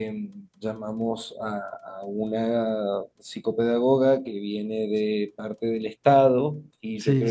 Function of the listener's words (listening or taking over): listening